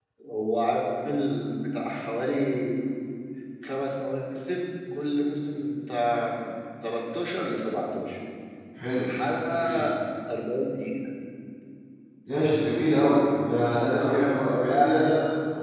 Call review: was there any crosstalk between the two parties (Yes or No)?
Yes